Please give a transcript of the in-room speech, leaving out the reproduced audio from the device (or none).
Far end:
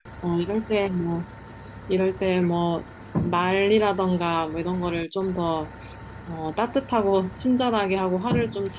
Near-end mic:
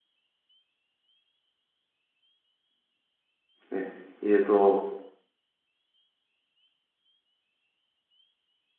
네. 이제 또